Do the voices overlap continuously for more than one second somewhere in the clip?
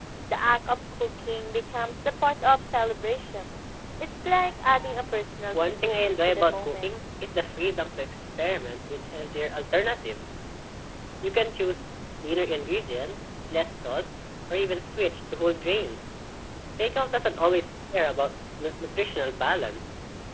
Yes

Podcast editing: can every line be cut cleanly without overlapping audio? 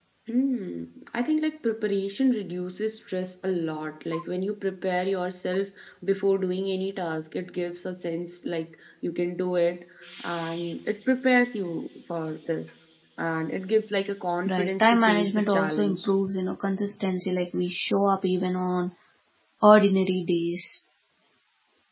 No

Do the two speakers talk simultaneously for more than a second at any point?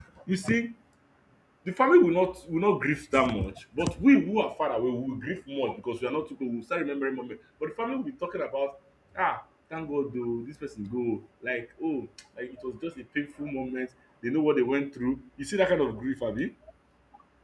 No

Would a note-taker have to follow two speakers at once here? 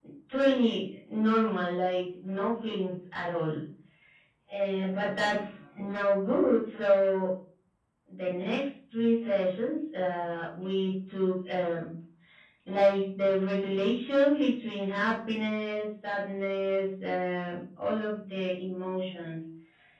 No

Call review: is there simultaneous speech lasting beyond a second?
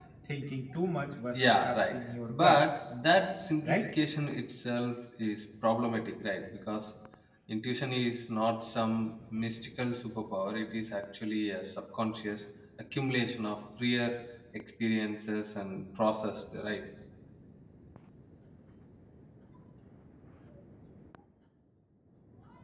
Yes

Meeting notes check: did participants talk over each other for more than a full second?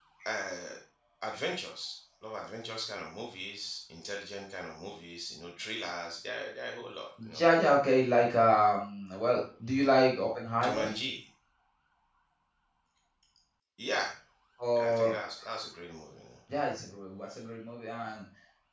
No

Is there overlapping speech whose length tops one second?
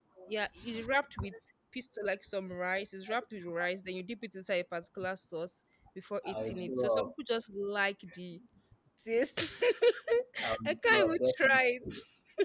Yes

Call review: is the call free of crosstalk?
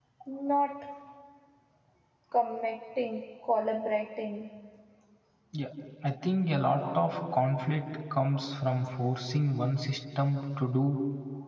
Yes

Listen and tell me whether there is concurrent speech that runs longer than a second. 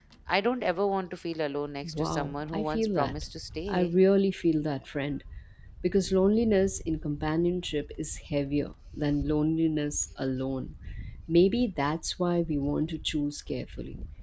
Yes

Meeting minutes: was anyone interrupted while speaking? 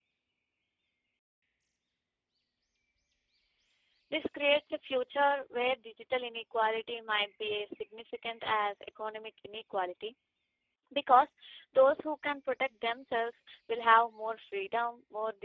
No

